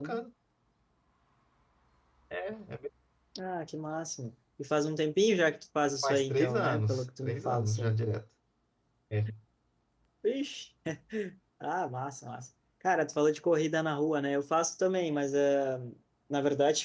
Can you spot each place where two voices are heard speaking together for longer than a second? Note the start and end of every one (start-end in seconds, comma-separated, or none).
6.0-8.0